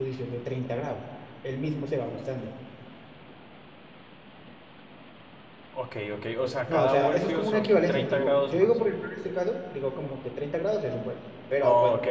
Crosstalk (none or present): present